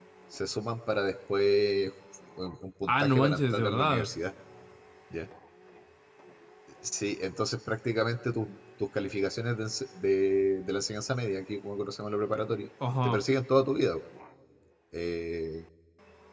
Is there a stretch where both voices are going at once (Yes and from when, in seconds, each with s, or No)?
Yes, from 2.9 s